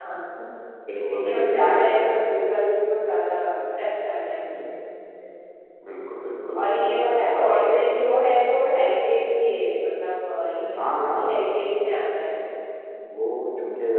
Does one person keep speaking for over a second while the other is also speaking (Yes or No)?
Yes